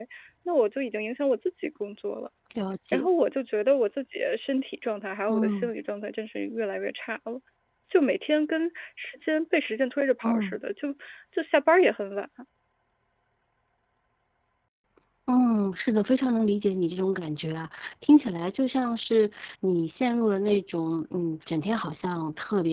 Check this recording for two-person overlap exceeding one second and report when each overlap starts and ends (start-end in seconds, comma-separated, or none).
none